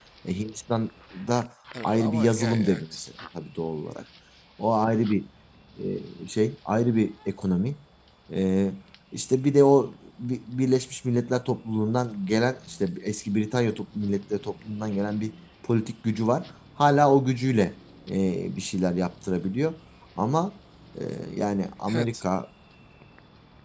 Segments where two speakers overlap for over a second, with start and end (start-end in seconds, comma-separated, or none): 1.8-3.1